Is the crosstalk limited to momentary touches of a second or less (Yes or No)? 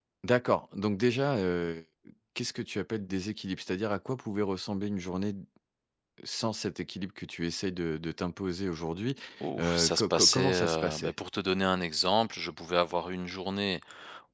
No